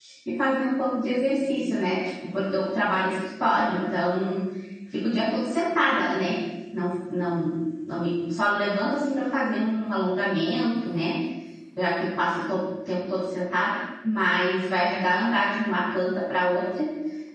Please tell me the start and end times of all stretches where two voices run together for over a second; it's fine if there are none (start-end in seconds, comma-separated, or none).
none